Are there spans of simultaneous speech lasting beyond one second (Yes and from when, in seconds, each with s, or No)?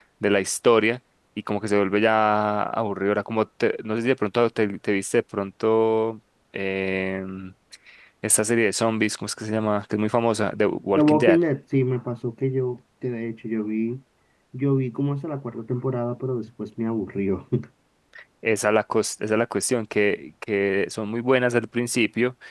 No